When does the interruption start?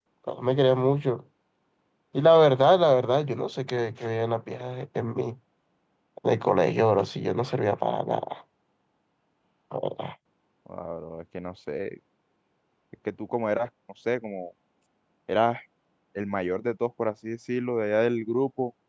none

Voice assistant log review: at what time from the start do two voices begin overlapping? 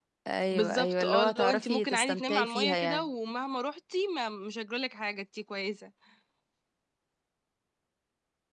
0.5 s

